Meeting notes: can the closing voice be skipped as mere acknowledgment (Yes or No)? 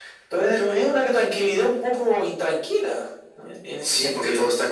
No